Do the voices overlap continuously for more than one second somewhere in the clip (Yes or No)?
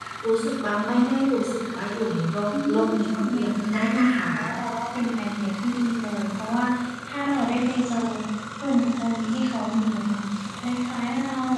Yes